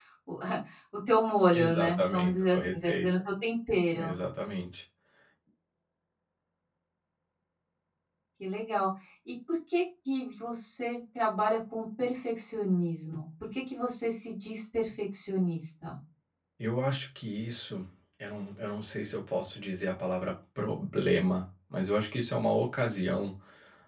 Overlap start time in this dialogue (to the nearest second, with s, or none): 2 s